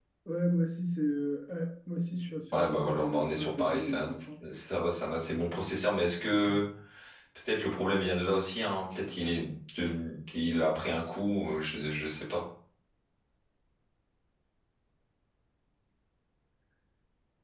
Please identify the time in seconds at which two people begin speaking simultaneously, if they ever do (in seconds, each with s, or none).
2.5 s